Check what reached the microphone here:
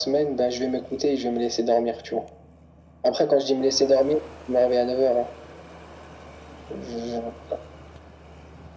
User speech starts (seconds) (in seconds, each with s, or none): none